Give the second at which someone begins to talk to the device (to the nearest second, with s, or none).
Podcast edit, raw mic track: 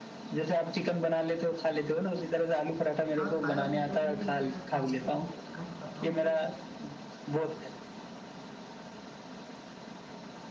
3 s